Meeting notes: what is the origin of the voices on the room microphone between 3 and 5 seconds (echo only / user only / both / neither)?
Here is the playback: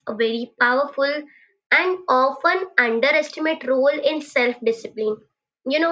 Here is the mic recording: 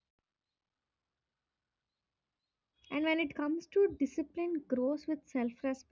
user only